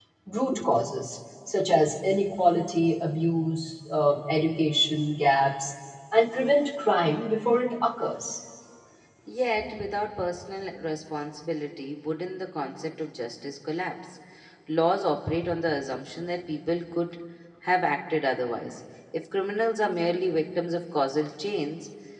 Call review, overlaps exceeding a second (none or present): none